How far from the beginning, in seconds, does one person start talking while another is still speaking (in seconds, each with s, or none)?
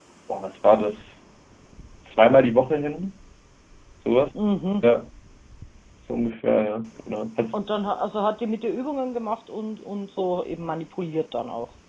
none